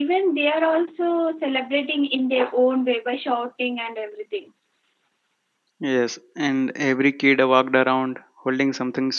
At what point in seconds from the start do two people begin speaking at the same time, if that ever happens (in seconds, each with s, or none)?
none